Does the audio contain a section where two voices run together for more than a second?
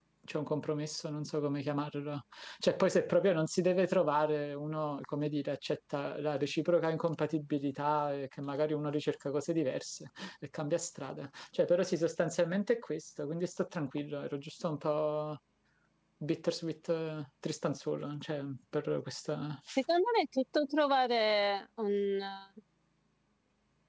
No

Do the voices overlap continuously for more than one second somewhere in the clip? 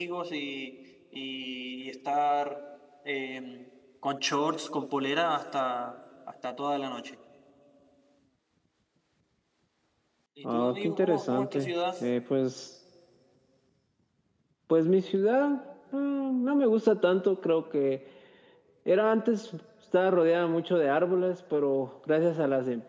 Yes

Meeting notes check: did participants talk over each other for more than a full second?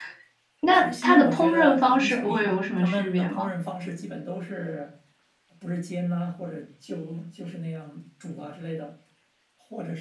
Yes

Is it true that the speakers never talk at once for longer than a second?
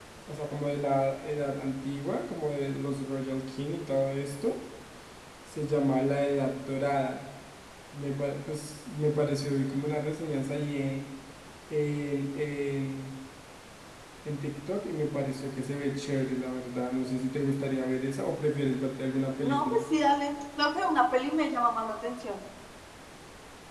Yes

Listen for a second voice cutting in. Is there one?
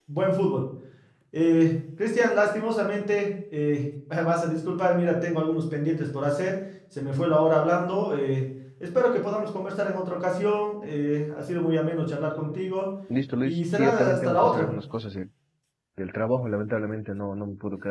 Yes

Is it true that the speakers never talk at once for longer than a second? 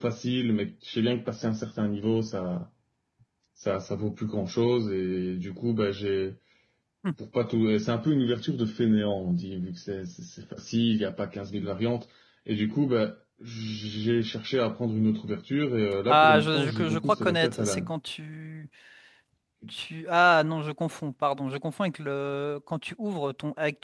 No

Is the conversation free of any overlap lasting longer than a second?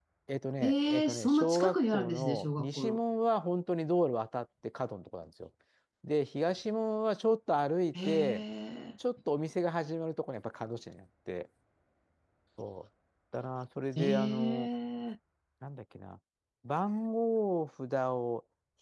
No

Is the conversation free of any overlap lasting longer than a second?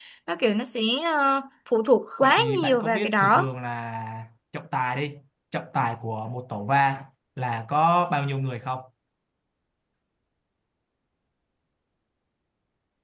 No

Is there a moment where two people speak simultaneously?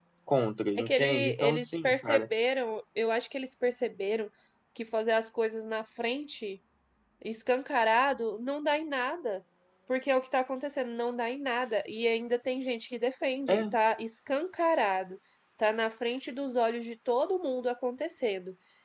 Yes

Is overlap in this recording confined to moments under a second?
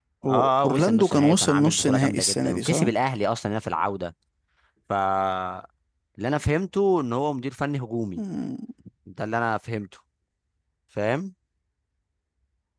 No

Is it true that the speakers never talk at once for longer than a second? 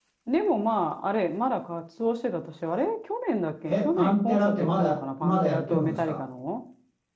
No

